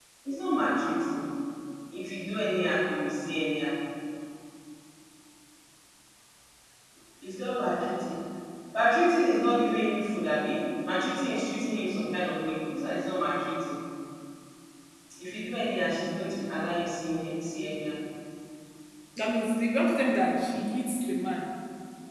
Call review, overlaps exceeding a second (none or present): none